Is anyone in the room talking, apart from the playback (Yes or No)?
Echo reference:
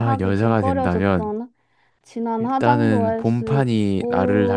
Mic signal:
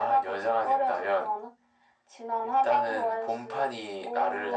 No